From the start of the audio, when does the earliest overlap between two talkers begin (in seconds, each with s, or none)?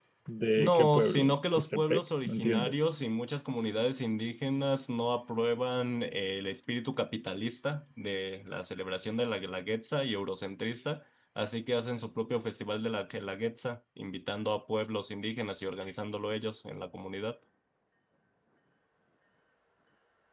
0.6 s